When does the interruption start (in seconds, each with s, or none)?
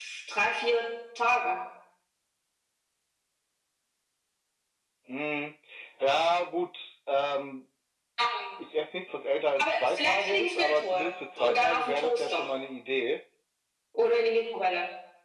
9.6 s